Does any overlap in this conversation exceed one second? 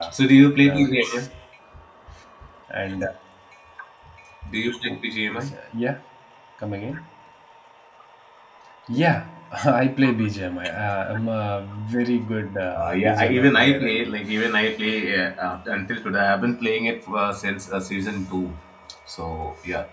Yes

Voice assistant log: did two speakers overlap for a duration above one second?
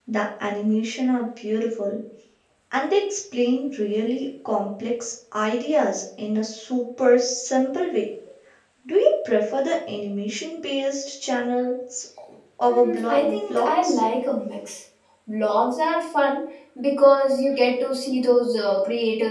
Yes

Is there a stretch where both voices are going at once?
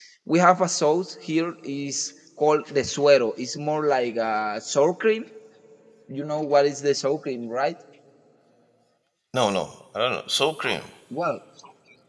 No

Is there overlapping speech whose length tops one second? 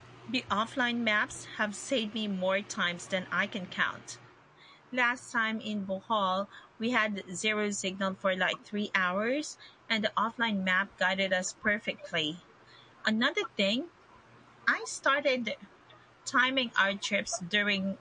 No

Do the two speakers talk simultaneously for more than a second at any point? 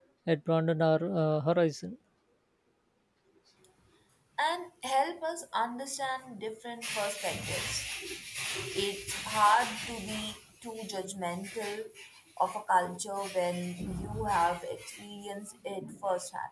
No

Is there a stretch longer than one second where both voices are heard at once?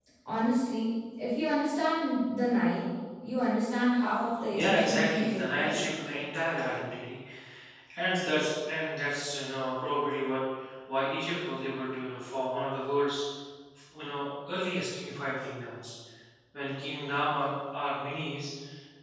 Yes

